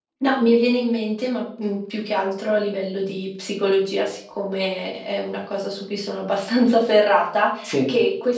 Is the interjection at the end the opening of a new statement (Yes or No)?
No